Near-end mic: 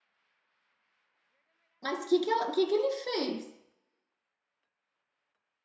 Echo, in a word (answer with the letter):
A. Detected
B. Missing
B